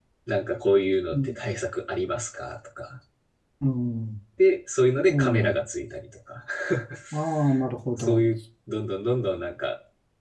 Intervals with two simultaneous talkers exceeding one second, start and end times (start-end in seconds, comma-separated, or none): none